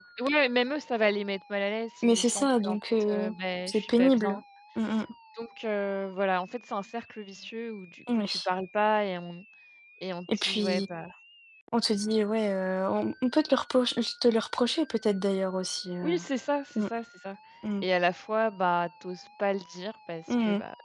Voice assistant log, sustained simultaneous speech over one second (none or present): present